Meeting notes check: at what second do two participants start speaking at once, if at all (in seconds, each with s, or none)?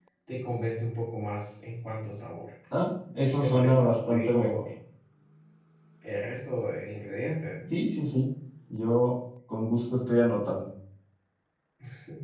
3.4 s